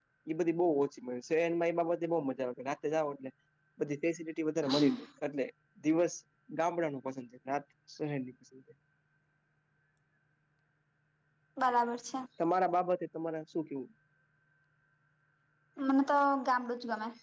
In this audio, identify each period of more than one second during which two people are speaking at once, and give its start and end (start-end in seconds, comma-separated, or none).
none